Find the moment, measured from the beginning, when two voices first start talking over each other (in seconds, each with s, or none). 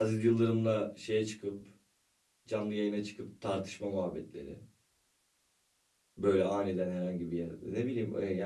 none